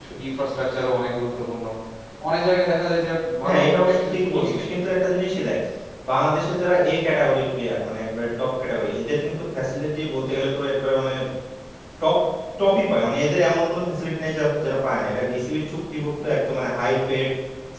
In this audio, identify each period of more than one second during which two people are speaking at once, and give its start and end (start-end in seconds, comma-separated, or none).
3.4-4.7